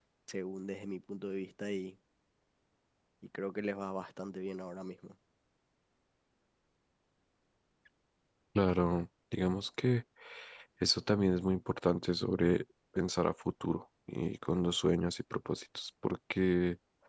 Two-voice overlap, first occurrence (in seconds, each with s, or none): none